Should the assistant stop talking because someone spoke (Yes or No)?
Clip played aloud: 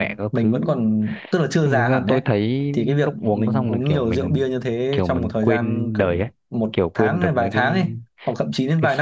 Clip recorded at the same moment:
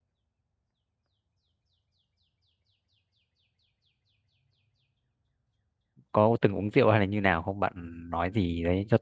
Yes